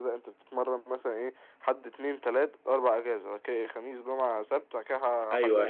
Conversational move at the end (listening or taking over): taking over